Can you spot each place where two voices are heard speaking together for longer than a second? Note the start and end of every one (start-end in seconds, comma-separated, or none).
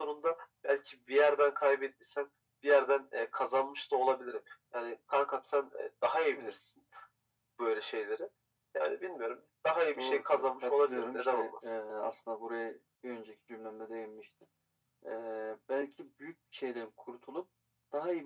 10.0-11.7